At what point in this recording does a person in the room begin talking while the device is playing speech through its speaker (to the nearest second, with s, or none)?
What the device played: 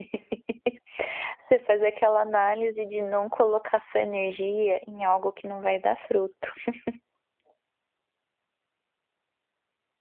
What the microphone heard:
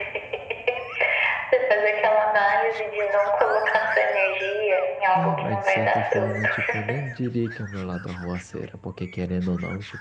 5 s